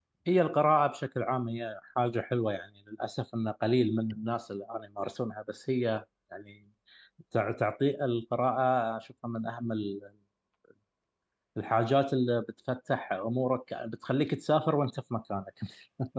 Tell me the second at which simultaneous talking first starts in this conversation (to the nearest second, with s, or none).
none